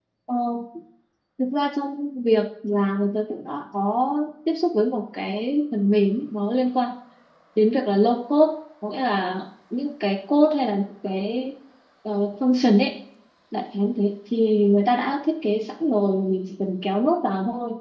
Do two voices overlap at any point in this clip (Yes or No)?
No